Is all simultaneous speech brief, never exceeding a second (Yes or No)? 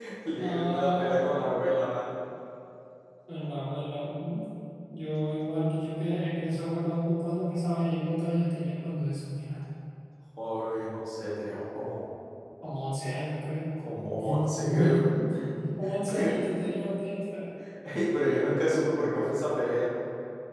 No